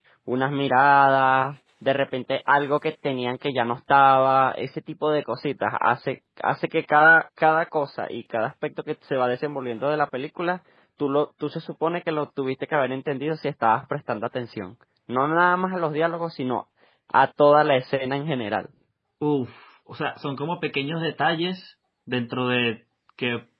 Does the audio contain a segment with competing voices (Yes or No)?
No